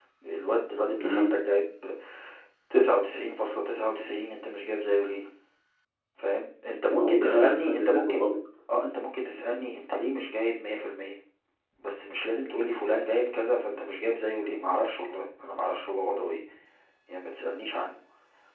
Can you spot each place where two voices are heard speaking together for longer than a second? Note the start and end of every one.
6.9-8.2

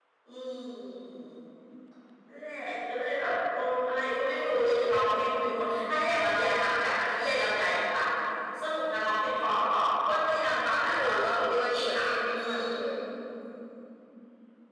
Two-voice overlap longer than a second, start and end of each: 10.7-12.6

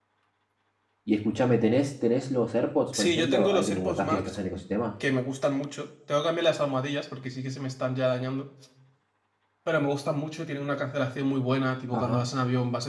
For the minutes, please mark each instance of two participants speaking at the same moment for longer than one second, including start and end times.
3.0-4.3

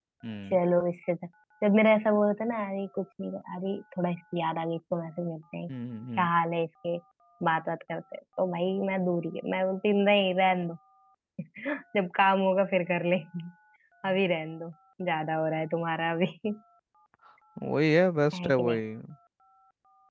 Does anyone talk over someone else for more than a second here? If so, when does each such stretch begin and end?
none

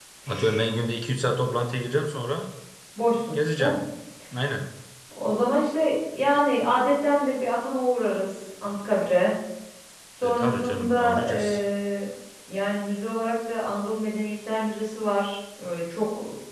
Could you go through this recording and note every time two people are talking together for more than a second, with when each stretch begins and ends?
10.2-11.6

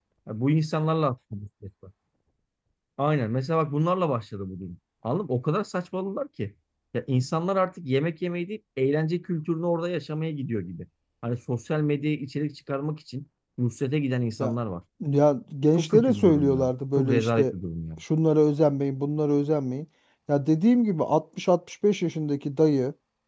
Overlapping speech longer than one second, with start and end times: 15.8-17.5

